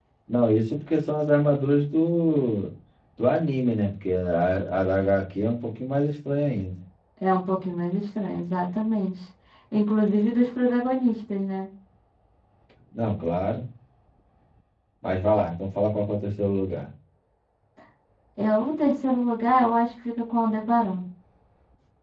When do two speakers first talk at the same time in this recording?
none

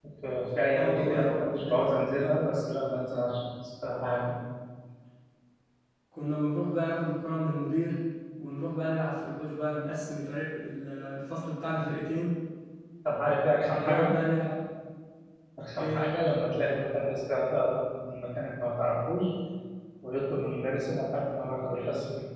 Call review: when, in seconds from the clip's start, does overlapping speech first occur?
0.7 s

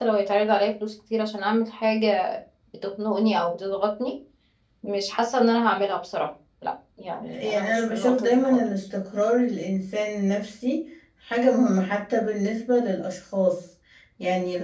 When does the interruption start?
7.3 s

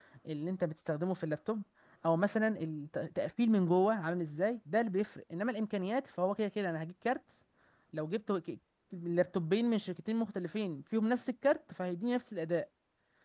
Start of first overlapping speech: none

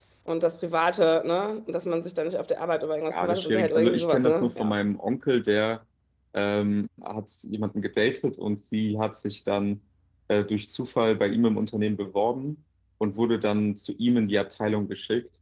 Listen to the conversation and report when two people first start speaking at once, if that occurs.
3.1 s

